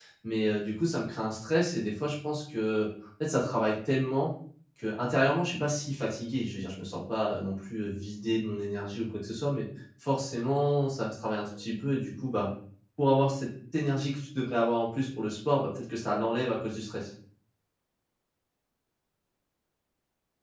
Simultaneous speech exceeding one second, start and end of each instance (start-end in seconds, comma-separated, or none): none